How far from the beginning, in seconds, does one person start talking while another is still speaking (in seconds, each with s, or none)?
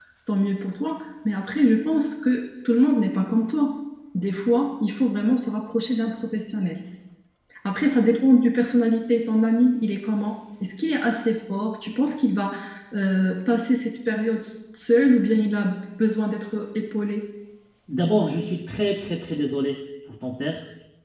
none